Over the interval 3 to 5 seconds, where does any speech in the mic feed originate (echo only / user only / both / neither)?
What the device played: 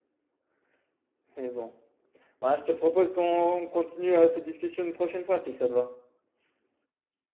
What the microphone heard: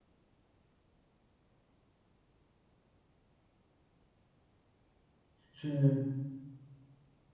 neither